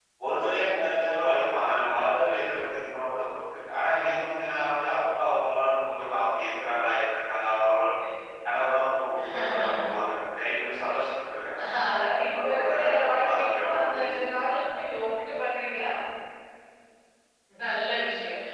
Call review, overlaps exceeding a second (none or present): present